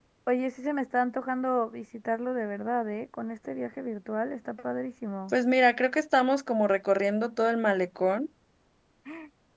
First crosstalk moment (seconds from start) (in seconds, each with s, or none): none